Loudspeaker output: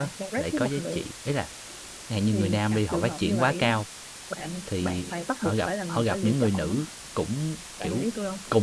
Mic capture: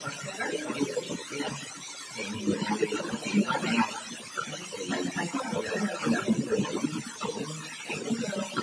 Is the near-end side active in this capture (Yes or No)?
No